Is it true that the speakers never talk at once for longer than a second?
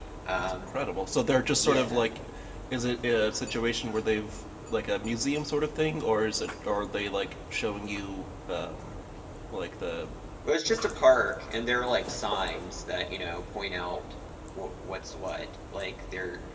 Yes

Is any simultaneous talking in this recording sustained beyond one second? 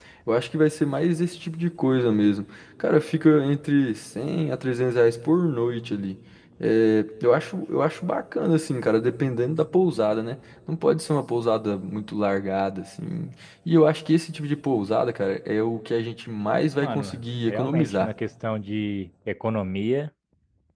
Yes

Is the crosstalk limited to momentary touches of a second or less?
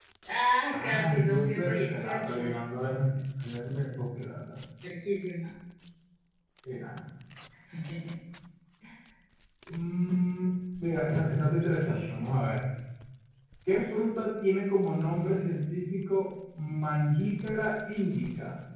No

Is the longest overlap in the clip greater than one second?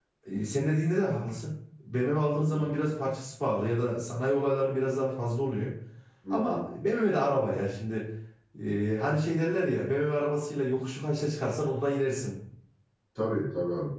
No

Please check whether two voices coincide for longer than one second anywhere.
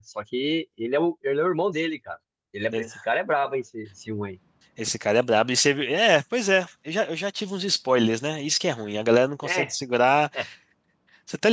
No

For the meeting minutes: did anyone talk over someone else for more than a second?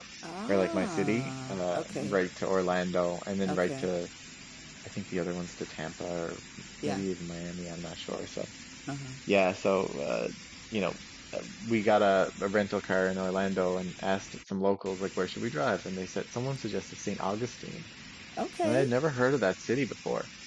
Yes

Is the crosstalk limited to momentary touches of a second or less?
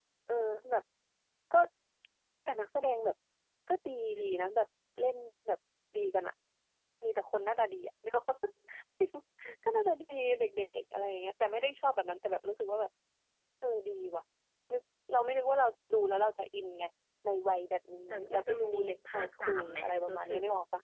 No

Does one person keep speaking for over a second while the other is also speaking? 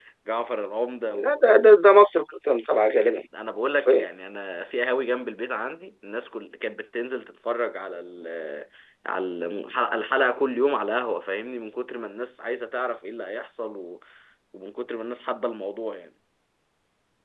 No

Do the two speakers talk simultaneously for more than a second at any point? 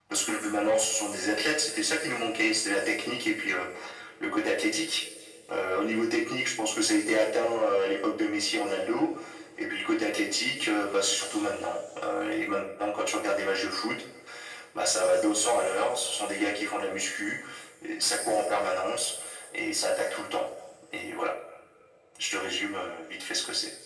No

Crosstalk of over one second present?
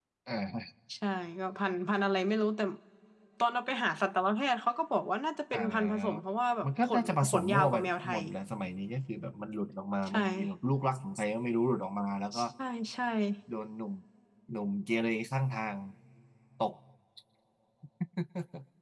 Yes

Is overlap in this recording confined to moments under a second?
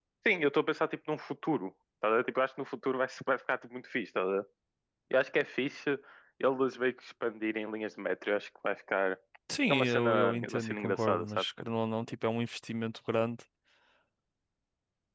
No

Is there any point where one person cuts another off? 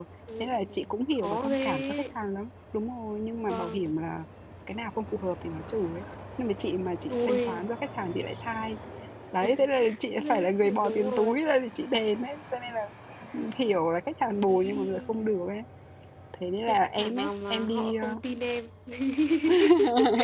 Yes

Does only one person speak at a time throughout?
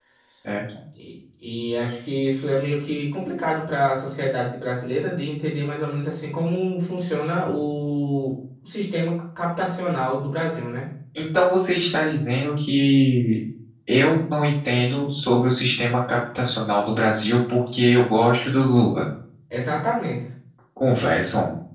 Yes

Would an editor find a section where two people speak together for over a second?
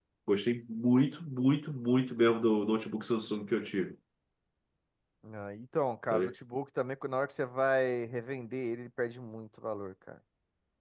No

